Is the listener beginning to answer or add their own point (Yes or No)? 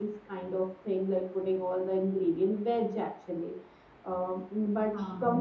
No